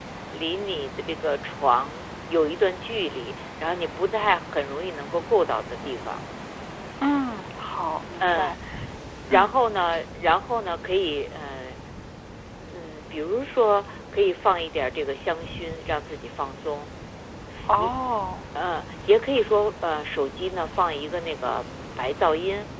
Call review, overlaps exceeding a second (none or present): none